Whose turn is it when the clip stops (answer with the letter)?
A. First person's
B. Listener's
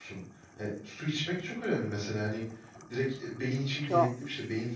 A